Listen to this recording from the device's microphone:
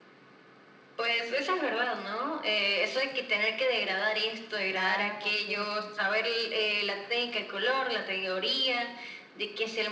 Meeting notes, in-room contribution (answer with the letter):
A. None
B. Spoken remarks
B